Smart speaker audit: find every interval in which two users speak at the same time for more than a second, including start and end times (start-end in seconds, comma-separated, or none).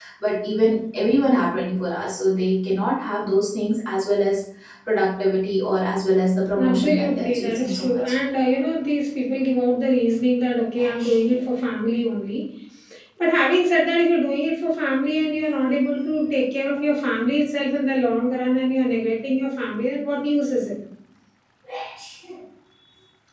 6.6-8.0